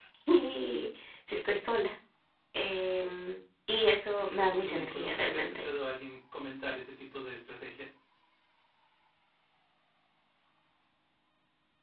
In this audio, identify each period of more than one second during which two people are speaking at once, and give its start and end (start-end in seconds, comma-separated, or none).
4.2-5.7